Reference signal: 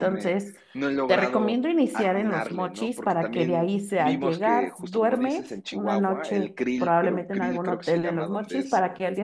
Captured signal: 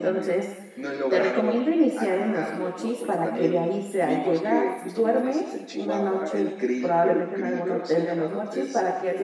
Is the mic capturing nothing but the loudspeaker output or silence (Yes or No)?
Yes